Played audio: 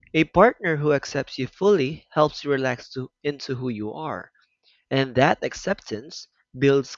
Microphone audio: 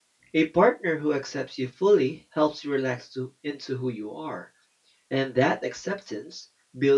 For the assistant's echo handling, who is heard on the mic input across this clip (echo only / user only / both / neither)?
echo only